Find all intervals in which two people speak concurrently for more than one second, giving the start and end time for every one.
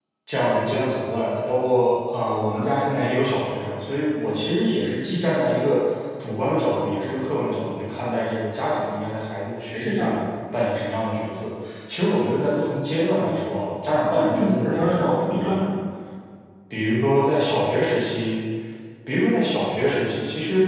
14.2-15.6

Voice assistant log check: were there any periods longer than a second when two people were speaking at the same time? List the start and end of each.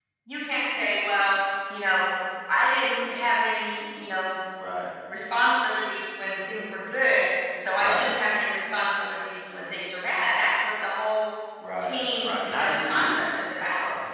11.8-13.3

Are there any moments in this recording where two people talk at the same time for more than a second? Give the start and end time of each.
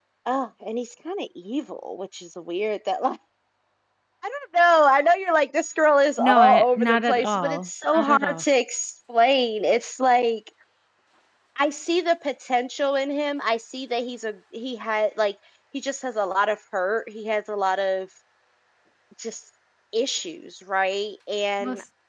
6.2-8.4

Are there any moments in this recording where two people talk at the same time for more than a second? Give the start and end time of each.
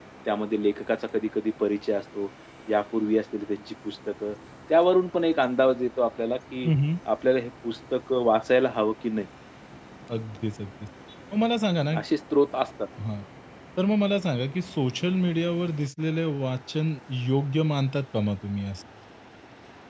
none

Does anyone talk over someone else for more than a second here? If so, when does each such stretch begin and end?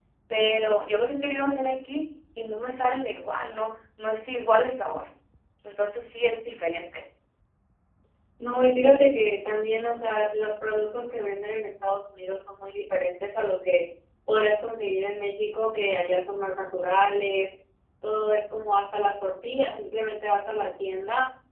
none

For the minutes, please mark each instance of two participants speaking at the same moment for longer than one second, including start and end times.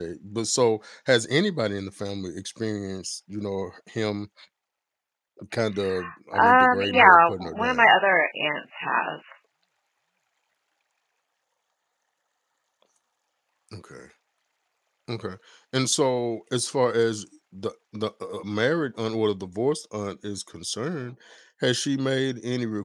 6.4-7.9

